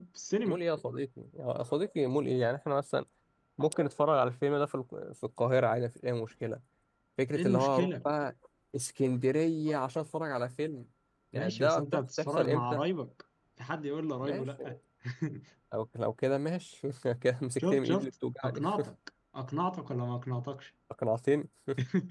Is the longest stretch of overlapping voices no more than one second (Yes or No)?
No